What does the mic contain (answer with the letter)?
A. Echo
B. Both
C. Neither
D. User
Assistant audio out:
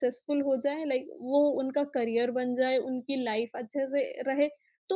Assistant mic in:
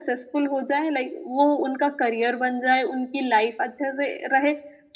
A